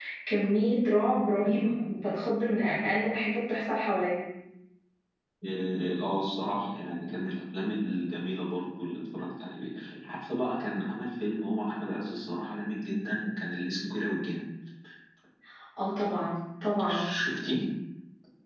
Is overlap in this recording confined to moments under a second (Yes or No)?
Yes